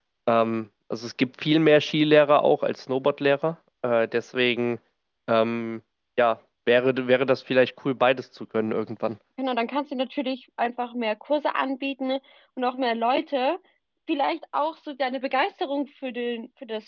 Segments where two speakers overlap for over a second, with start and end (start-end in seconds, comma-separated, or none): none